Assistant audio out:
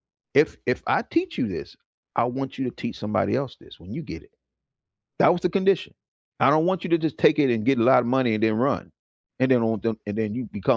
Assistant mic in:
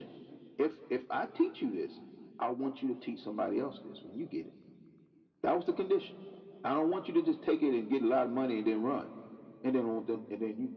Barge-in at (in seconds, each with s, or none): none